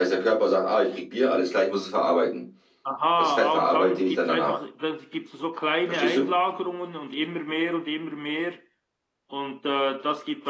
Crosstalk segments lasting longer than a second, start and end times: 3.2-4.6

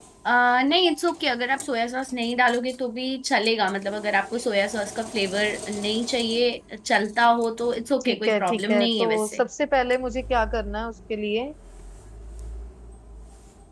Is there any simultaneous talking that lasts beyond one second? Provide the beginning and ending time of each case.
8.0-9.4

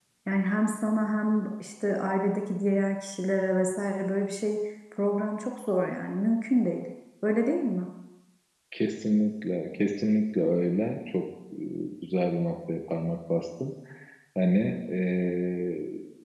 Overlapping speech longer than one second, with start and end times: none

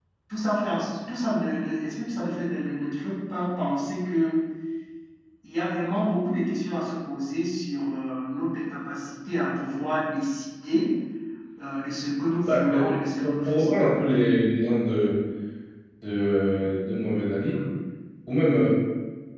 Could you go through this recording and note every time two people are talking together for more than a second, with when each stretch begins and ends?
12.4-13.8

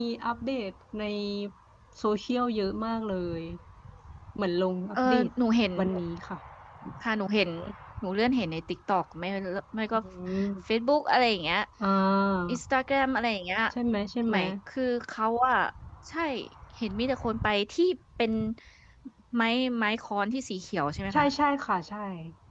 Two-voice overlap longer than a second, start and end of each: none

